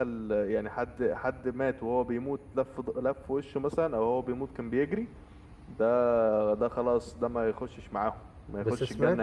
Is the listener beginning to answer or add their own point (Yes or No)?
Yes